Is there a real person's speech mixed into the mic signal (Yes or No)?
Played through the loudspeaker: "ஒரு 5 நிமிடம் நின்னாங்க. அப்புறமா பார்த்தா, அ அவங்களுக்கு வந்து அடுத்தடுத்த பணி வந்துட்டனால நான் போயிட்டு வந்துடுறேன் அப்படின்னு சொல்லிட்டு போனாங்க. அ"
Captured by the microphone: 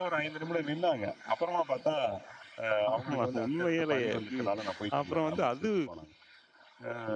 Yes